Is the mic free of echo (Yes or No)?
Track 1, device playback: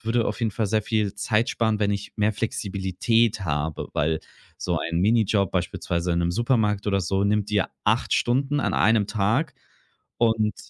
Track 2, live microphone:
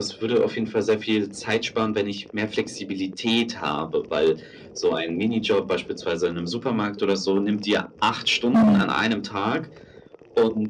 No